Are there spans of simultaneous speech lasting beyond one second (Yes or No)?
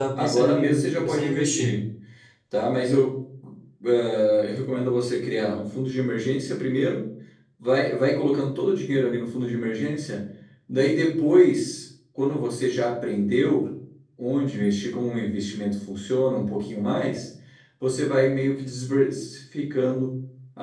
Yes